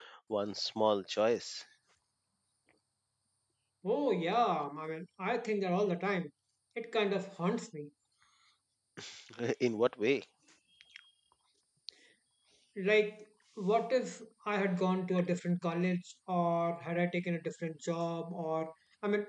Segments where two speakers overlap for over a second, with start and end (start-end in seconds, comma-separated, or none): none